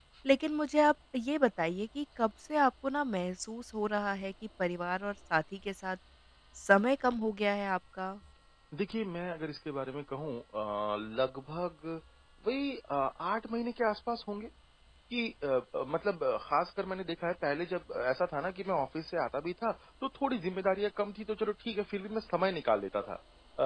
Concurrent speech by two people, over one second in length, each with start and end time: none

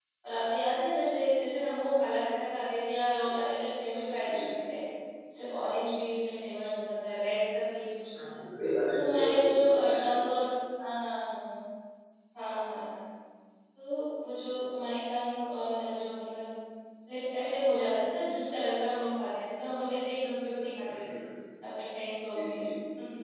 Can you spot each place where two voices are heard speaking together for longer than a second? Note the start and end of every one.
8.9-10.2

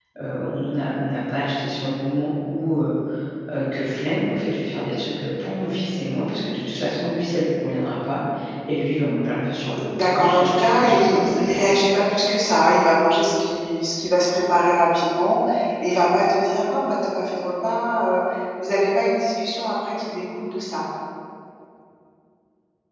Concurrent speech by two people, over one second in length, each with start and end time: 10.0-11.7

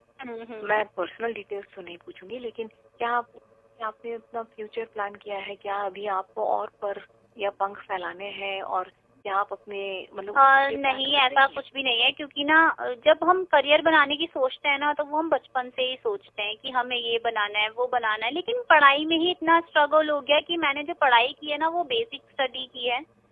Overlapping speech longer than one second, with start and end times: 10.4-11.6

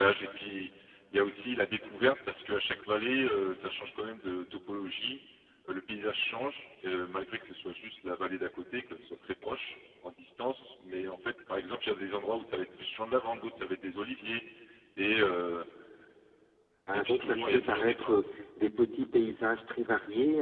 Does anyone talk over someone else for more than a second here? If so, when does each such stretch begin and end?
16.9-18.1

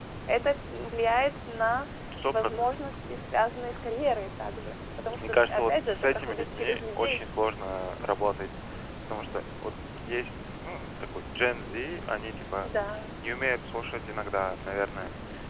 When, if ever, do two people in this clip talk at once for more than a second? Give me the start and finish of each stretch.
5.3-7.2

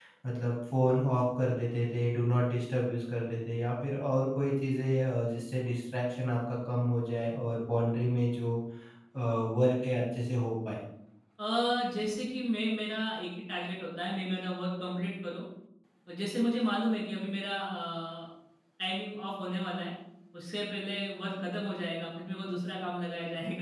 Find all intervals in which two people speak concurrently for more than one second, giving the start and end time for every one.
none

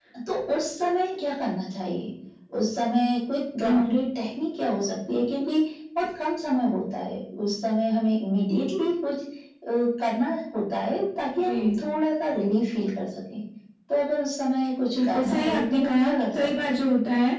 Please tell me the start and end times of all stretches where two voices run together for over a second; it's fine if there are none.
15.0-16.8

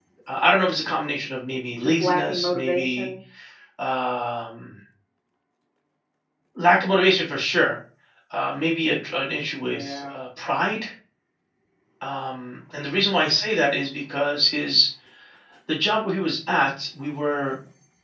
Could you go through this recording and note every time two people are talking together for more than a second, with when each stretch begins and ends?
1.8-3.1

